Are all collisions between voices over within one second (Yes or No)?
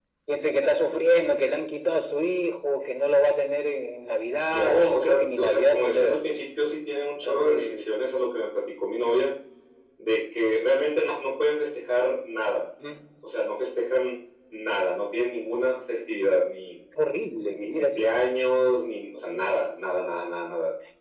No